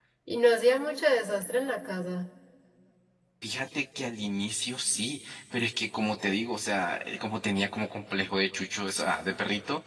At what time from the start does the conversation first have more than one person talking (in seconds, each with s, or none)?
none